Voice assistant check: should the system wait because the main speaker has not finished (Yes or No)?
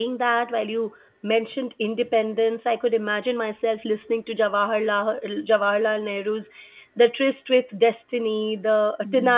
Yes